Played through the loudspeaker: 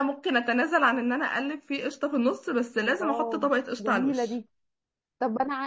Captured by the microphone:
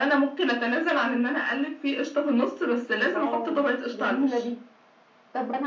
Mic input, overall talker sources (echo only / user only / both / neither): echo only